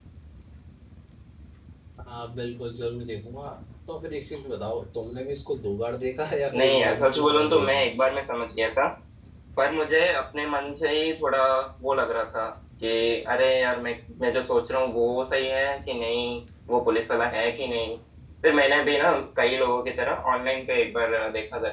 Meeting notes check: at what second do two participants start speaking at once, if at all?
6.5 s

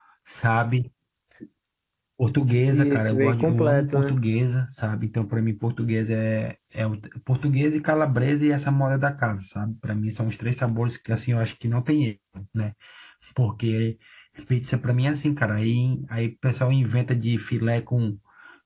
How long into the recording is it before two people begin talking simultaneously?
2.7 s

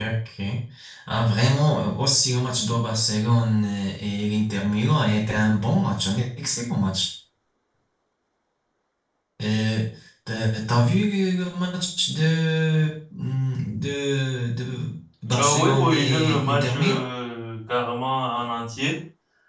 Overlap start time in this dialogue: 15.4 s

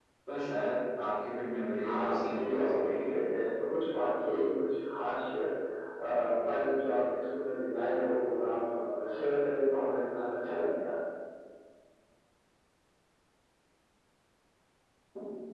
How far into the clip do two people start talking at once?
1.8 s

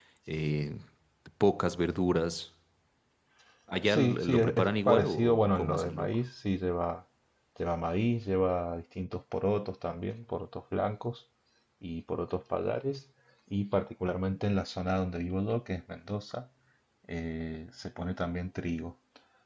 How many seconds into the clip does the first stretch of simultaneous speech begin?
3.8 s

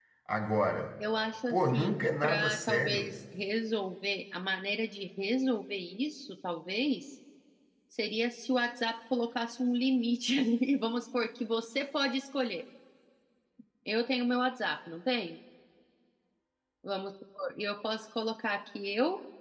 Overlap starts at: 1.5 s

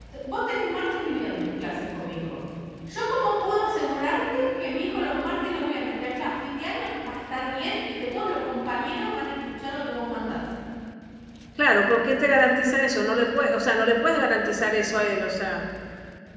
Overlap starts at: none

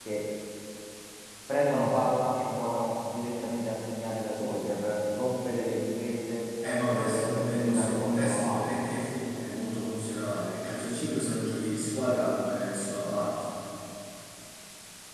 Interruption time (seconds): 6.6 s

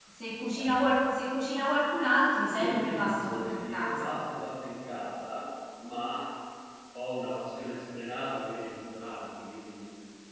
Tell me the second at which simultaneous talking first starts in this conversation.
2.5 s

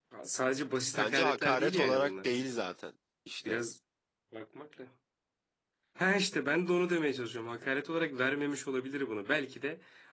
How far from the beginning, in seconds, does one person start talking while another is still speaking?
1.0 s

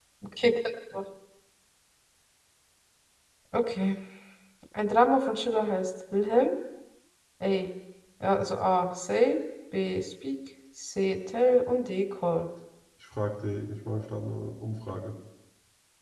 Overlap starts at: none

